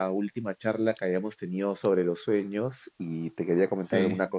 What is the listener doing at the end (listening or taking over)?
listening